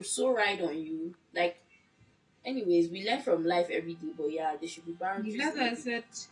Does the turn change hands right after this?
Yes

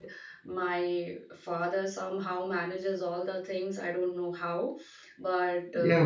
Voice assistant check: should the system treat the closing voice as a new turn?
Yes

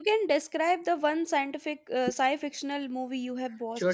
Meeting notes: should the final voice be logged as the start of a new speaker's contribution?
Yes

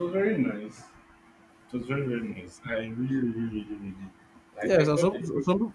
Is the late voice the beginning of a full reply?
Yes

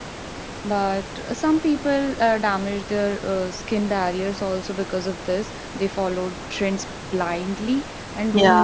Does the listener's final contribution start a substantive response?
No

